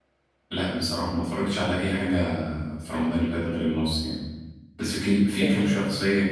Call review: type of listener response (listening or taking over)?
listening